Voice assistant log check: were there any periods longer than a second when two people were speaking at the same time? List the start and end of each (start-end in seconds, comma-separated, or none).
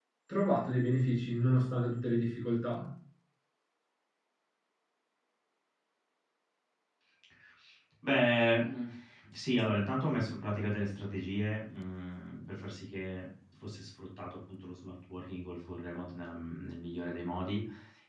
none